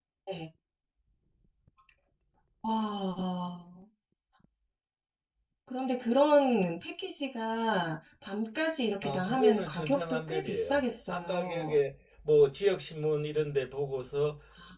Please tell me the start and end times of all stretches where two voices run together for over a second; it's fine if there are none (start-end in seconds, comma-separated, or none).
9.0-11.8